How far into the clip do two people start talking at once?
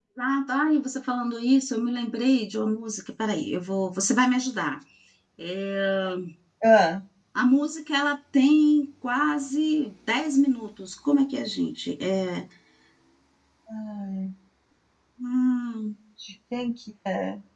none

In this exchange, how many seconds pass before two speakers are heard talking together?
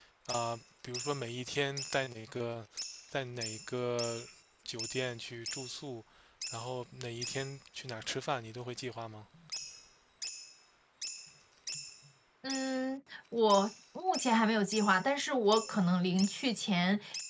none

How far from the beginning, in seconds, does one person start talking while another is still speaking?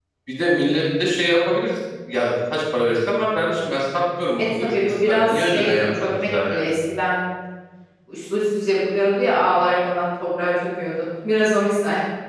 4.6 s

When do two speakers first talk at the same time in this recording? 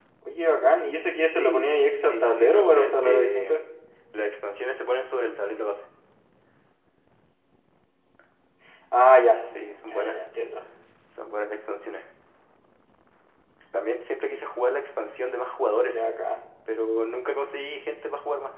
1.2 s

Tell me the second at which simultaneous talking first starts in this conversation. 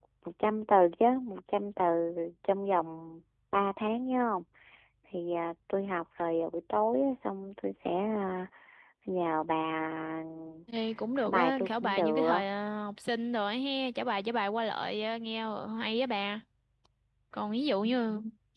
11.2 s

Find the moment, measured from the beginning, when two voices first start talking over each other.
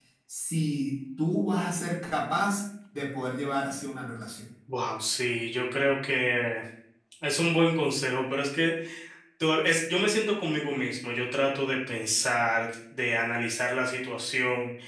none

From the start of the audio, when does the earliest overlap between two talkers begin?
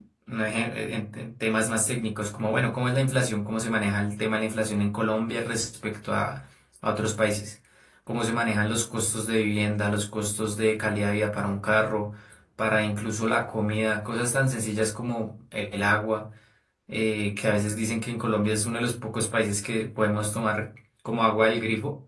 none

